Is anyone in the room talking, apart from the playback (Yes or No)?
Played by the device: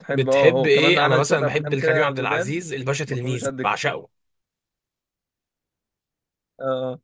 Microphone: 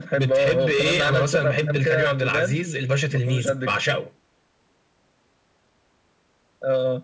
No